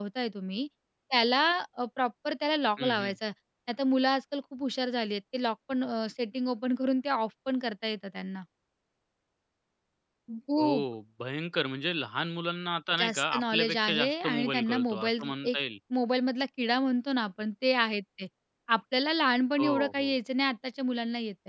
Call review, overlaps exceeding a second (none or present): present